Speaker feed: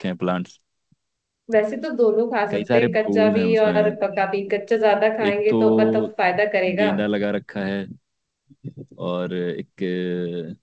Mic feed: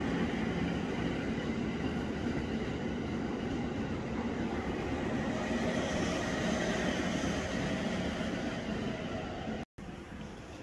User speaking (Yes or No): No